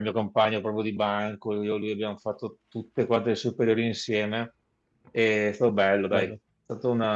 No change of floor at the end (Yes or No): Yes